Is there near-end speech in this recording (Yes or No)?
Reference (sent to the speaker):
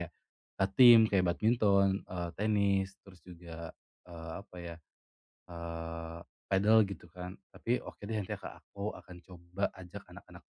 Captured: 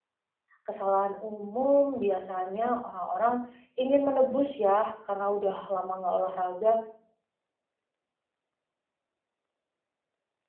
Yes